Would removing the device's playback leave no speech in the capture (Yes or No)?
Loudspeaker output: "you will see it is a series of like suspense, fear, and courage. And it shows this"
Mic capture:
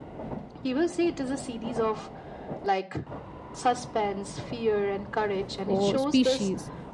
No